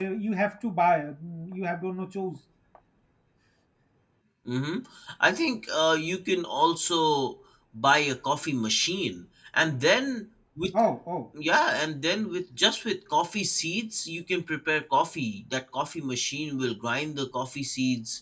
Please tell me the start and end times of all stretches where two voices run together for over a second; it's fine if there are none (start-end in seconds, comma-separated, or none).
none